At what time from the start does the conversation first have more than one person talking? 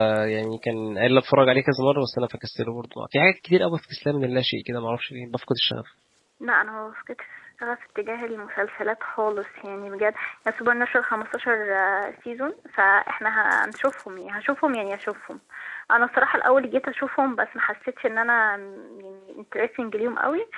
none

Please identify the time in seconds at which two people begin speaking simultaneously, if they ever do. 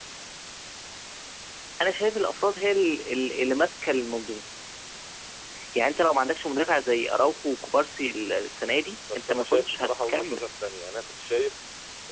9.1 s

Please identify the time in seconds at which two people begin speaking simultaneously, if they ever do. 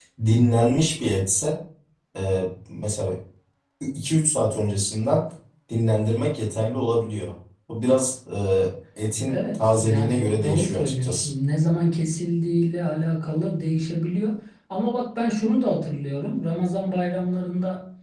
9.3 s

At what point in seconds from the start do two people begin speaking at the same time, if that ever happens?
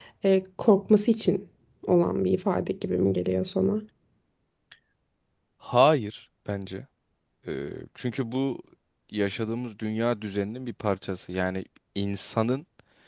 none

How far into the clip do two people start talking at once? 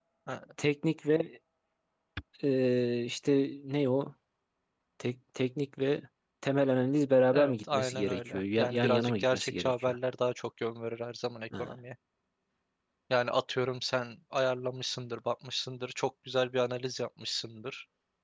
7.3 s

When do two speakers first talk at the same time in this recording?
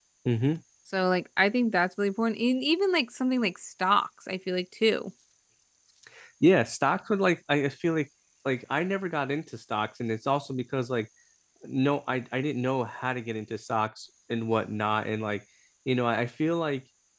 none

